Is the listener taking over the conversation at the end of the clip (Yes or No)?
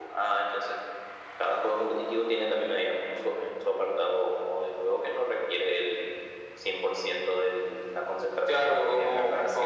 Yes